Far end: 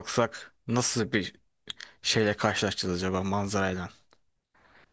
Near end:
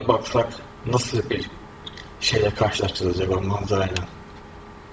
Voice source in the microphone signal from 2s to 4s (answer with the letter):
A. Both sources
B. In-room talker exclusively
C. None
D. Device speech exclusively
D